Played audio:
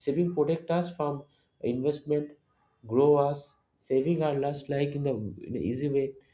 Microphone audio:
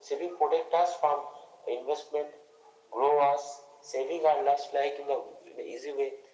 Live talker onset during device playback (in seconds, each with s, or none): none